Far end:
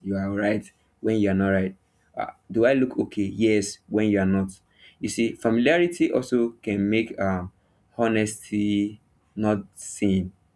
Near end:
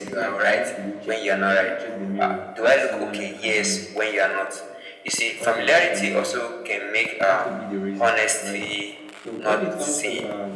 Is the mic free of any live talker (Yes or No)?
No